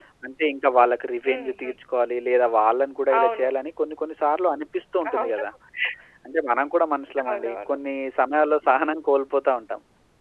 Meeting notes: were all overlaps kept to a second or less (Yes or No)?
Yes